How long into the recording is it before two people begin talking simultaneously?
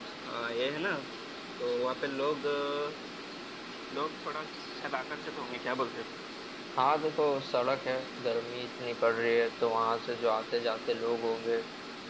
none

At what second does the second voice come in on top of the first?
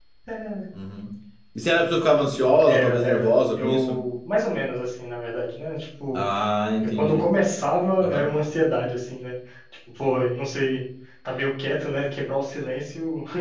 2.7 s

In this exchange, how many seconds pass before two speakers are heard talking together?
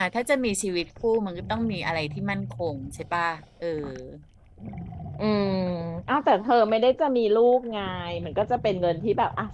none

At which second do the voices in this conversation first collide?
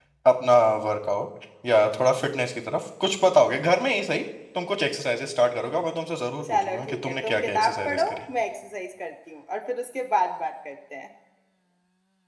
6.4 s

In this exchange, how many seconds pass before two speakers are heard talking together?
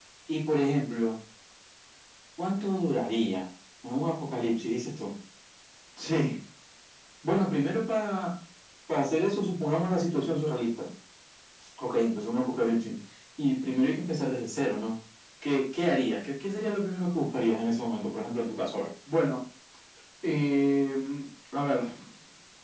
none

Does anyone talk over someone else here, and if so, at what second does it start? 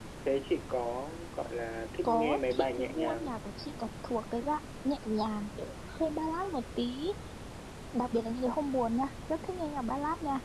2.0 s

